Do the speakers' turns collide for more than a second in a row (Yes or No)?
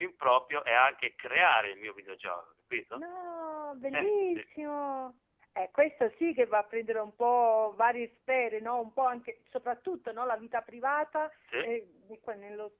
No